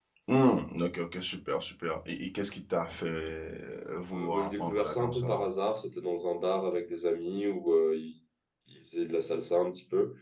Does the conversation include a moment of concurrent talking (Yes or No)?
Yes